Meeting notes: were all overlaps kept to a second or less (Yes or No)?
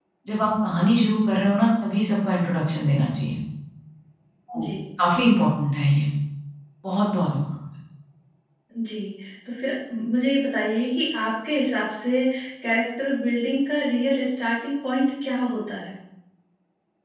Yes